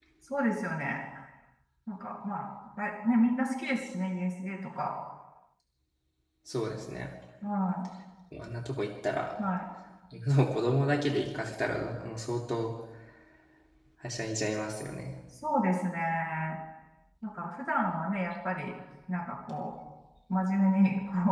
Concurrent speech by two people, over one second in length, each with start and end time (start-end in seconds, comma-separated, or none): none